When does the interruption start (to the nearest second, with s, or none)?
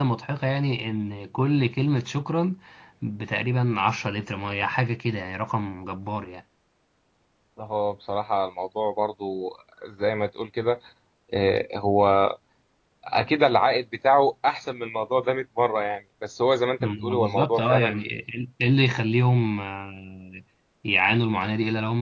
17 s